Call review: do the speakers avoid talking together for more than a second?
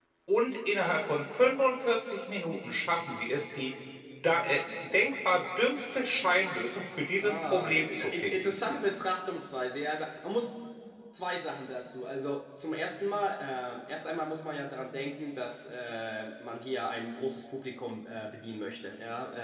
No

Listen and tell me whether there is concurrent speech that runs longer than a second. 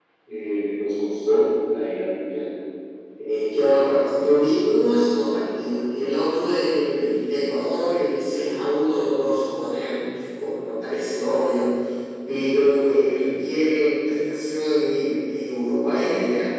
No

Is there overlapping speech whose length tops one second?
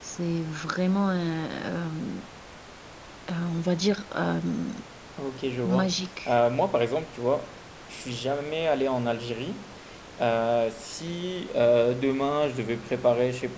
No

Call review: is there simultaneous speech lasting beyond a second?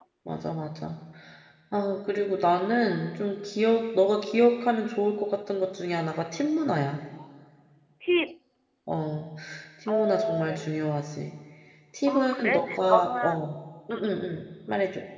Yes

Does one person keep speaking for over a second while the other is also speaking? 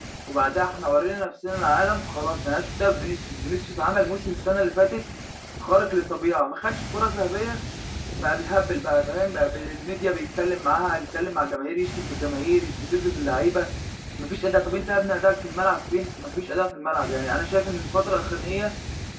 No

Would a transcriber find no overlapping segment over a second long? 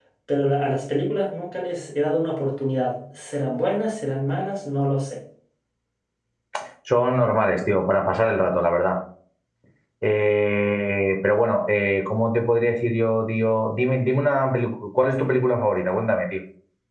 Yes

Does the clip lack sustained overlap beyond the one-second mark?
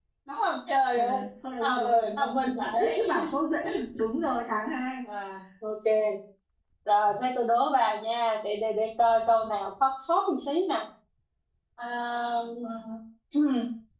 No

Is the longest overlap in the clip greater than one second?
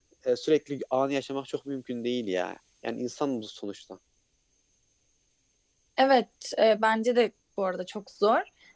No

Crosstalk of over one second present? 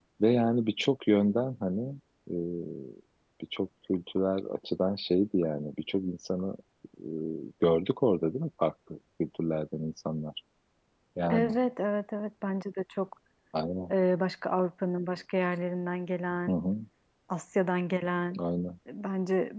No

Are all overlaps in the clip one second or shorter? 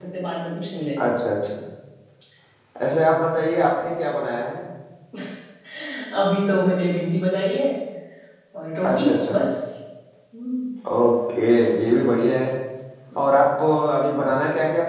Yes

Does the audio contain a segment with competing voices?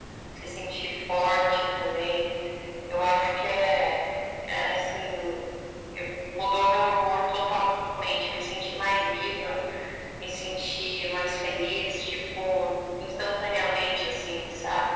No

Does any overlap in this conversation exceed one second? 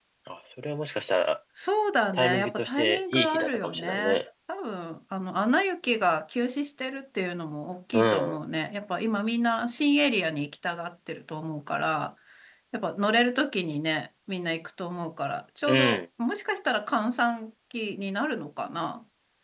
Yes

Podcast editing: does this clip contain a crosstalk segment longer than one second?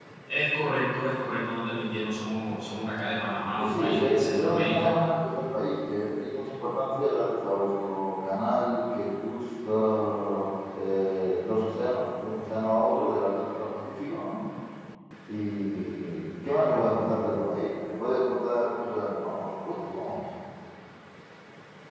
Yes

